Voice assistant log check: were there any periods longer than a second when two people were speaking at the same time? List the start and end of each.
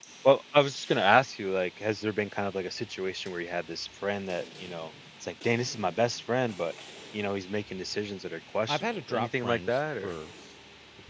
8.7-10.1

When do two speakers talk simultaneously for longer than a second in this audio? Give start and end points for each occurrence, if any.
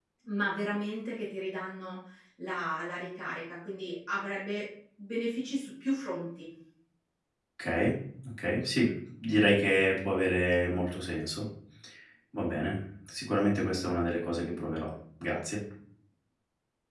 none

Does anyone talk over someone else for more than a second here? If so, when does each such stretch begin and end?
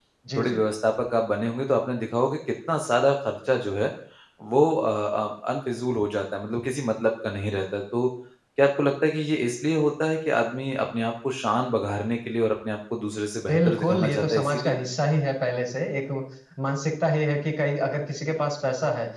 13.5-14.8

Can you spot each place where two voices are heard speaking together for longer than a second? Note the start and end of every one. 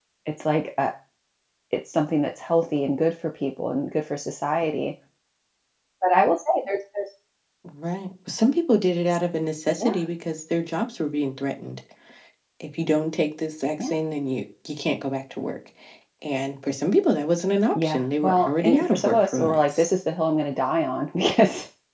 17.8-19.9

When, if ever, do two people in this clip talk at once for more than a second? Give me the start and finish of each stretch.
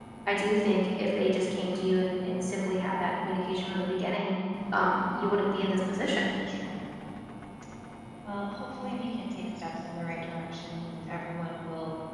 none

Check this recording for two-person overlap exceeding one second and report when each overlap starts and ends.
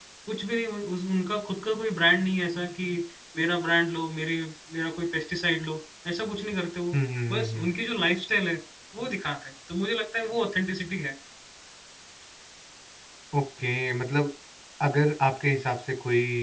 none

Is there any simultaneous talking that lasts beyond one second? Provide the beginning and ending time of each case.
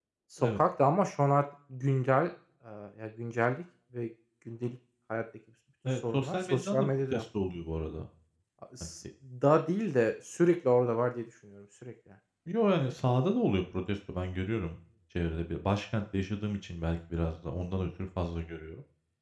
5.8-7.2

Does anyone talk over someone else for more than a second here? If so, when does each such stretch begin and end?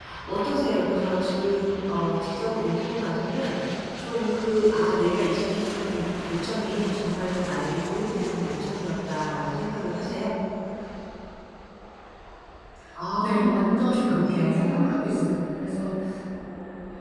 13.2-15.3

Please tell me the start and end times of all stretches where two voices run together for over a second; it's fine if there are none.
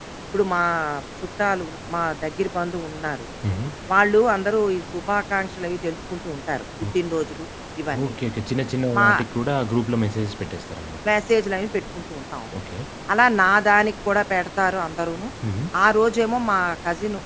none

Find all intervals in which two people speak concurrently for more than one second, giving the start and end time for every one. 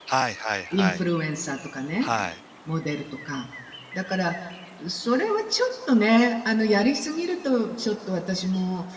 none

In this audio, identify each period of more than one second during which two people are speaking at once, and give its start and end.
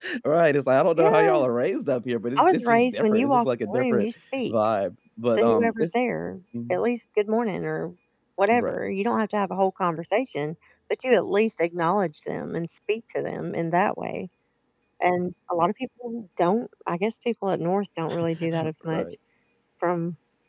2.4-4.1

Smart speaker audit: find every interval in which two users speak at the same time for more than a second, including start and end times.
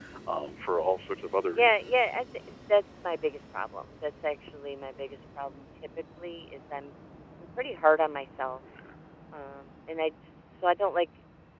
none

